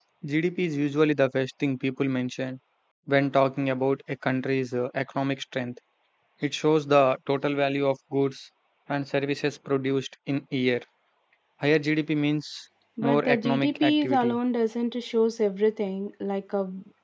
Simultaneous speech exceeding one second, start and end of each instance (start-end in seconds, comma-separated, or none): 13.0-14.4